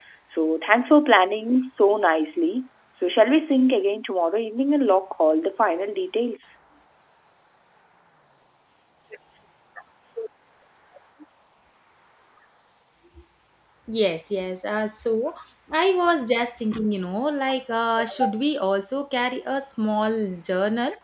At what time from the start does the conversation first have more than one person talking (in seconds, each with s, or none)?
none